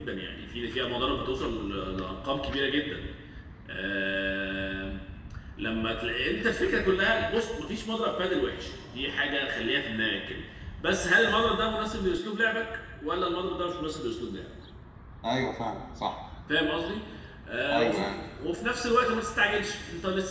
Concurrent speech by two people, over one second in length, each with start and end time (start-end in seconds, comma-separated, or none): none